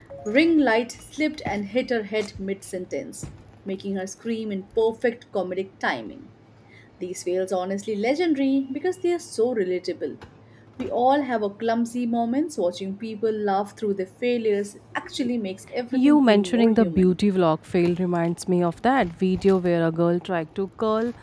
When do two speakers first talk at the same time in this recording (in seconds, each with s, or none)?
15.9 s